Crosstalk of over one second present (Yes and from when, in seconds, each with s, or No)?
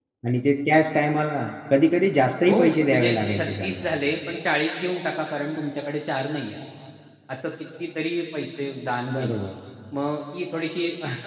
Yes, from 2.5 s